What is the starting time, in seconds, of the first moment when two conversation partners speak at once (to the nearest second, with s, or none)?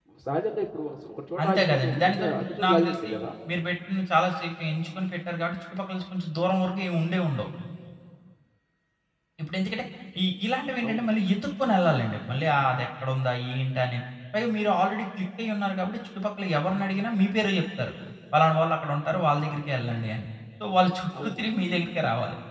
1 s